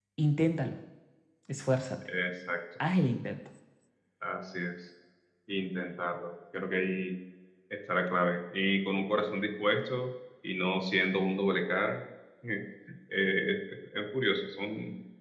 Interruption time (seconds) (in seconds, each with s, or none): none